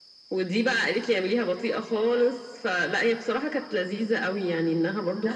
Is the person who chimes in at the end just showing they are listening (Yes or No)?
Yes